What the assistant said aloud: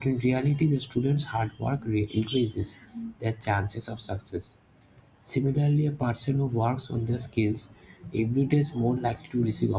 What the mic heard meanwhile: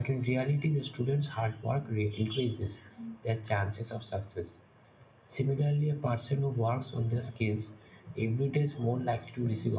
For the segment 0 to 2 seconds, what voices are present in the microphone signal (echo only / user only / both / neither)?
echo only